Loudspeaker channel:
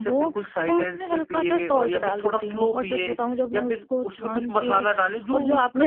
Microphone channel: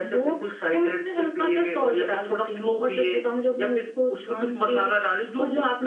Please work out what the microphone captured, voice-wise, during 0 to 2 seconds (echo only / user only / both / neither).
echo only